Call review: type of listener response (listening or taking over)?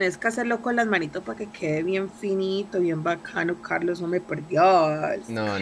taking over